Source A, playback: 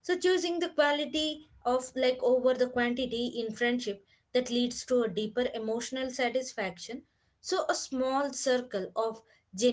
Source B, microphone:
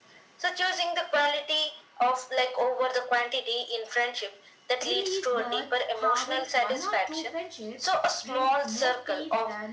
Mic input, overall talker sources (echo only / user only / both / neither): both